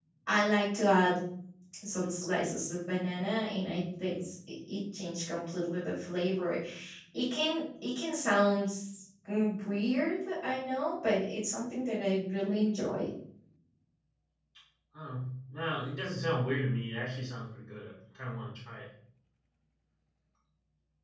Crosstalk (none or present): none